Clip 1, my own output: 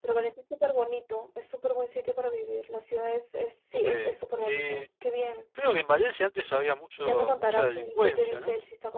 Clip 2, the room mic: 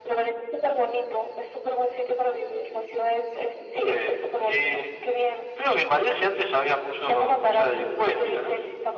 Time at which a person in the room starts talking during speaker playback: none

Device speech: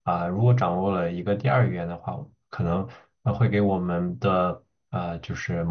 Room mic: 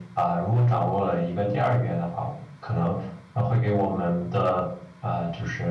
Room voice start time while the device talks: none

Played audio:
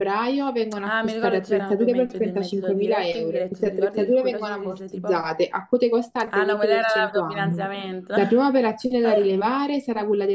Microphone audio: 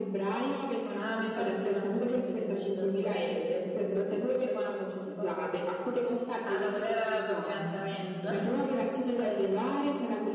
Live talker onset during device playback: none

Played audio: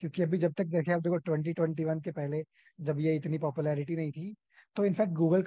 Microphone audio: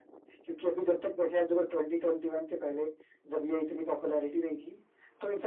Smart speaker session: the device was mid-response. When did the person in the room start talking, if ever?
none

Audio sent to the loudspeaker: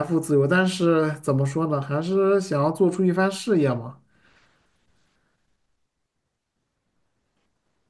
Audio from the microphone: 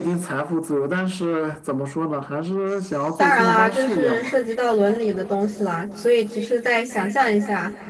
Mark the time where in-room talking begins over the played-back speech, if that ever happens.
3.1 s

